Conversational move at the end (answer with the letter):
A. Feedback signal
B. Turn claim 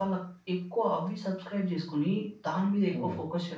A